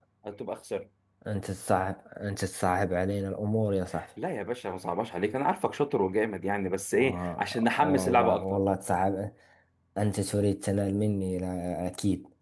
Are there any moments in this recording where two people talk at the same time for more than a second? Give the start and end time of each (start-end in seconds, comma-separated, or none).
6.9-8.6